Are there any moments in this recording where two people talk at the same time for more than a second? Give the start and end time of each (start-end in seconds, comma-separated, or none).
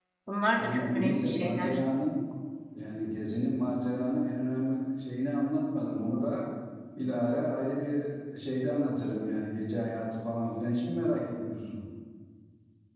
0.6-1.8